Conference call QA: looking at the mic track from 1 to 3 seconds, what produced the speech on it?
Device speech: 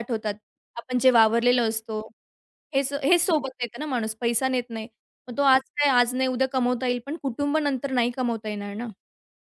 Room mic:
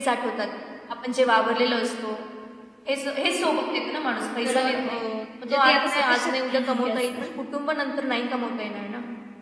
echo only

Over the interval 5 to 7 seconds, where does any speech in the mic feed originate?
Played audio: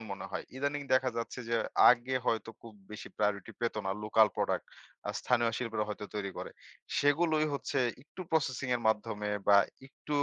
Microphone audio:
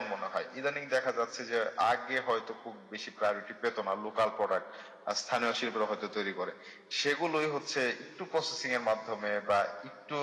echo only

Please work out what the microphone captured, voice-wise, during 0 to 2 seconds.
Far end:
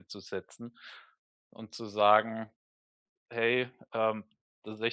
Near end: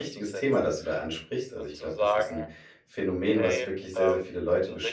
both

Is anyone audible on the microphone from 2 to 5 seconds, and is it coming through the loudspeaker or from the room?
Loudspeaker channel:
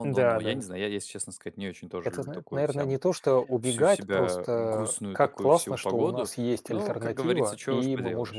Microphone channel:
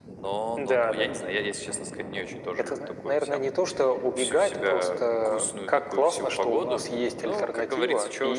echo only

